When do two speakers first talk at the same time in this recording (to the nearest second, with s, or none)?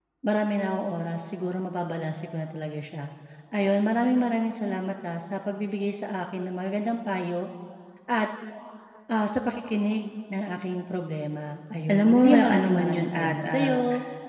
12 s